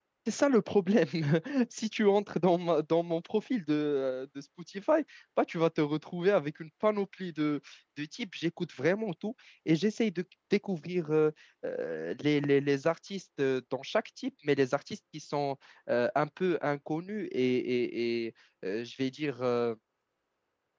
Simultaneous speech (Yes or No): No